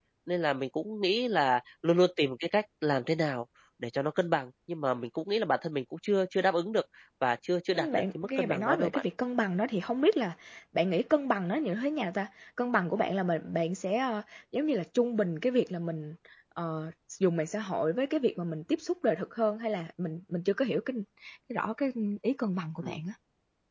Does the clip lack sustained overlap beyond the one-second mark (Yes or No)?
No